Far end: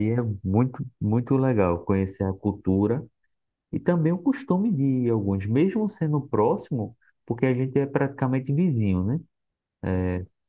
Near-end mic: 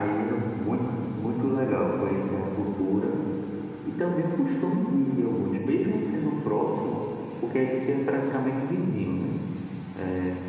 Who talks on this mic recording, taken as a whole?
echo only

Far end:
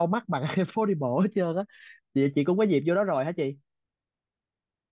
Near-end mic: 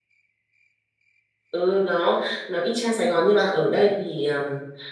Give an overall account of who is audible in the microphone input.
user only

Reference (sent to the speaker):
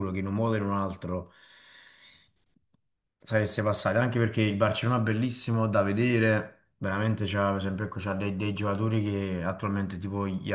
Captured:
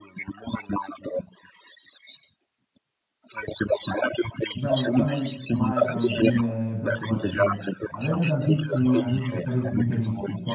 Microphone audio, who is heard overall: both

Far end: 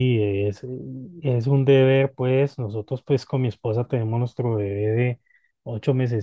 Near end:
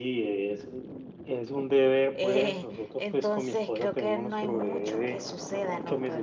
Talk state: both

